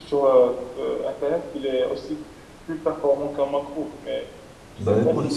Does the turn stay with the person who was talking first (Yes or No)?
No